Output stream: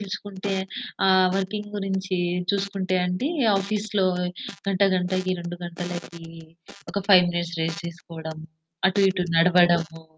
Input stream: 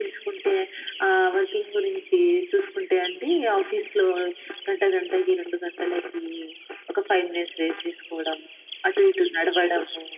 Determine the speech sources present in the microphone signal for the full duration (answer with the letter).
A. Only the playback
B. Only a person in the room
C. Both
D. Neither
A